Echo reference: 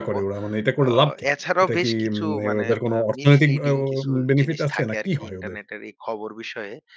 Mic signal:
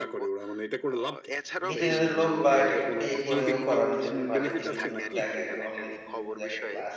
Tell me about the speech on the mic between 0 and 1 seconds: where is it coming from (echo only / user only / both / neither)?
echo only